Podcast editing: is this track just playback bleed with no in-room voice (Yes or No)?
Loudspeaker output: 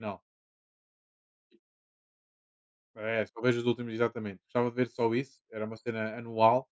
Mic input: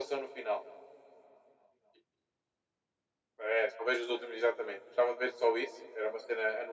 Yes